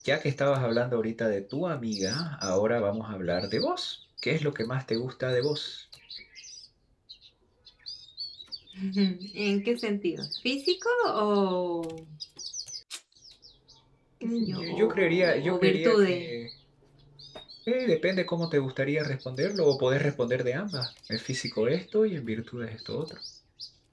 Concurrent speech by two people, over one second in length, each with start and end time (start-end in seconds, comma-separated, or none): 14.4-16.3